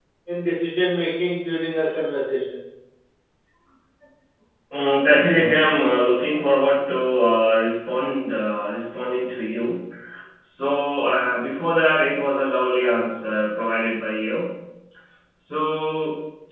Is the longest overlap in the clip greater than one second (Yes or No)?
No